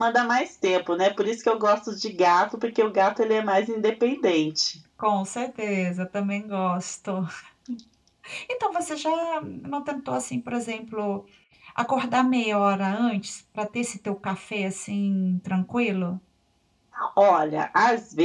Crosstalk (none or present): none